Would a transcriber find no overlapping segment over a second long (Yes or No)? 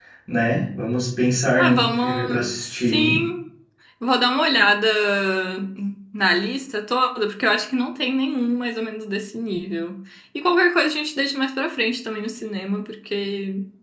No